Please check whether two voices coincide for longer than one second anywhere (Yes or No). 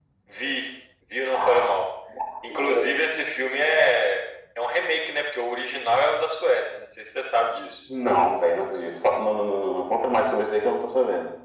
No